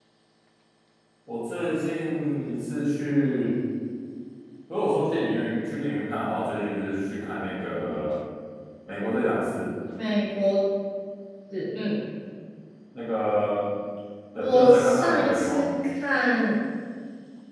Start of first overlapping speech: 14.4 s

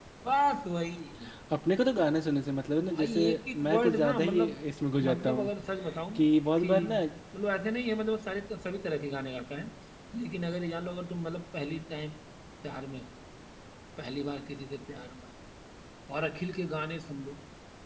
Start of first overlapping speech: 2.9 s

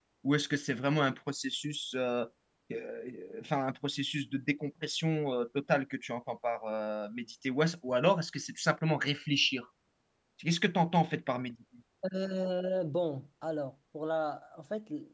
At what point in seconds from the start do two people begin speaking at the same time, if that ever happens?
none

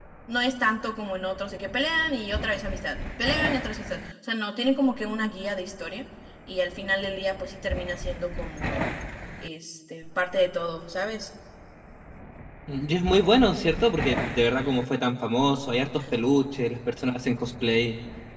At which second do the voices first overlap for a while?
none

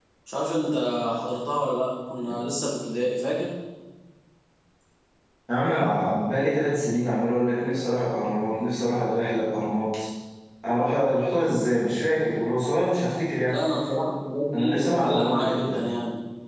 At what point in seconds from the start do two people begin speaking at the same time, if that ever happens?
14.6 s

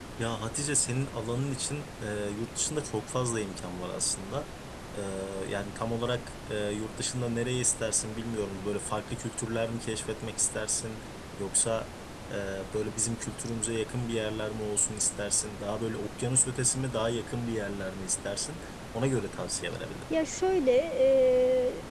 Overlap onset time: none

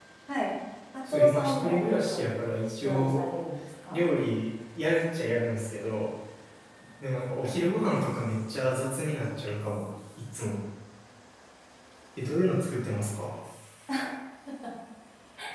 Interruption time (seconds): 1.1 s

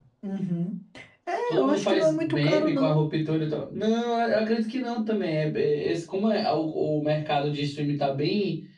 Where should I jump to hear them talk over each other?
1.5 s

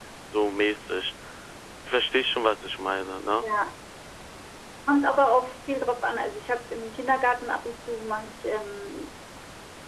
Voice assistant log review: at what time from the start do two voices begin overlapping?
none

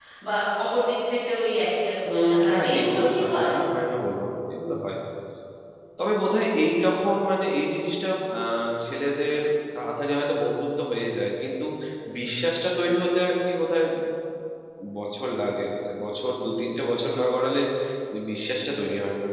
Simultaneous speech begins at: 2.0 s

